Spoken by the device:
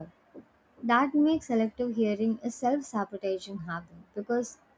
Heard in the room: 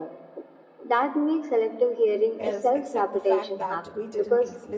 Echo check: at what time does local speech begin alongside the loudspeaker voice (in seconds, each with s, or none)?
2.4 s